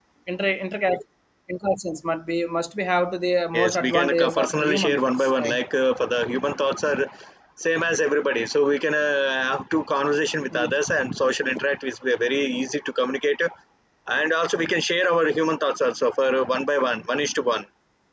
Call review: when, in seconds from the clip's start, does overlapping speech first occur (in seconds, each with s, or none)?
3.5 s